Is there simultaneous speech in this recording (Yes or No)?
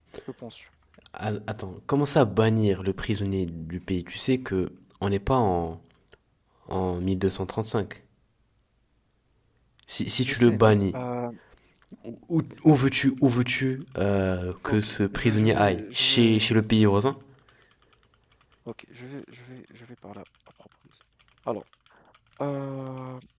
Yes